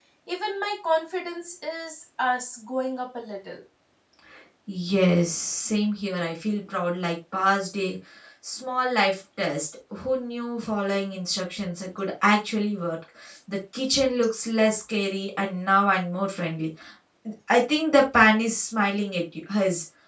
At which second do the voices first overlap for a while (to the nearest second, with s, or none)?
none